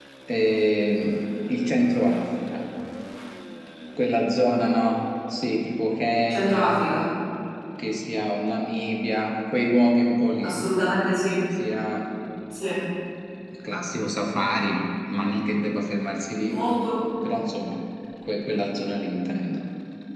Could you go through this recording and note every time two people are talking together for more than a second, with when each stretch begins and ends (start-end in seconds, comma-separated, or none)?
none